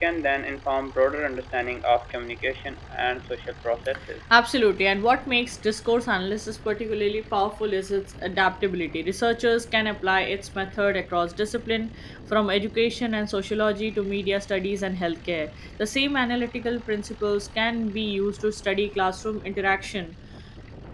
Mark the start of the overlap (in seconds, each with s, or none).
none